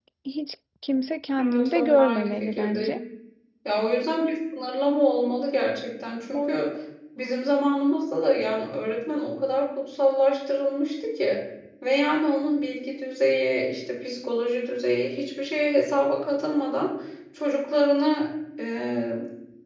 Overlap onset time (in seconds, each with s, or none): 1.4 s